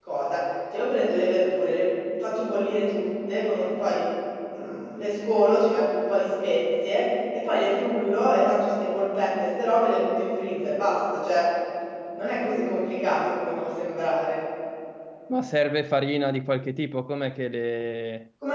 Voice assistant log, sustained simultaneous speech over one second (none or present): none